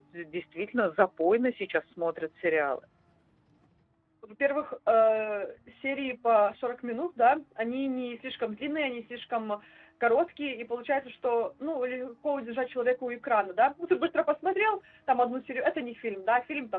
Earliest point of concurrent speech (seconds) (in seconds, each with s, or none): none